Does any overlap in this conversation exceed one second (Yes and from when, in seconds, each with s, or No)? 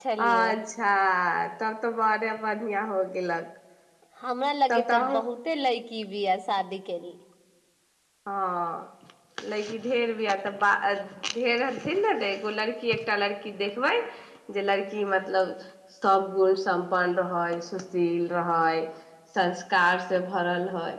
No